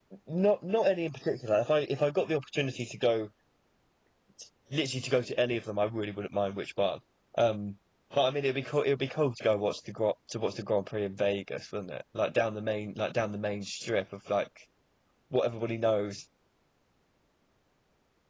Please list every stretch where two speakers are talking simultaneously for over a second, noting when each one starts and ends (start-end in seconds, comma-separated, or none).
none